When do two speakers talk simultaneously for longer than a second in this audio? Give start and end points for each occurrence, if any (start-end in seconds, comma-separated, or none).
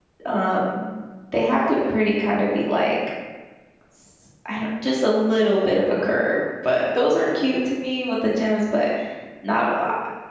none